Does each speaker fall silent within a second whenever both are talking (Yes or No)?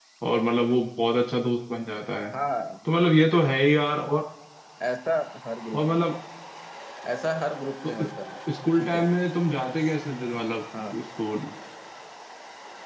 Yes